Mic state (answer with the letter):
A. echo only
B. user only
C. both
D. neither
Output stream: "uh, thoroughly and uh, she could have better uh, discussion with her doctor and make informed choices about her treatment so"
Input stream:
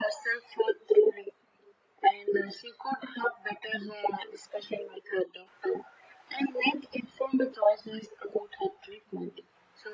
A